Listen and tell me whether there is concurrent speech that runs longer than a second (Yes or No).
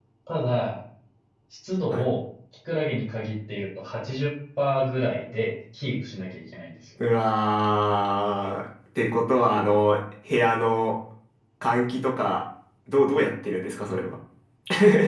No